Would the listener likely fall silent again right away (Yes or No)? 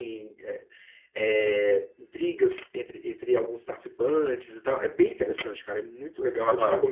No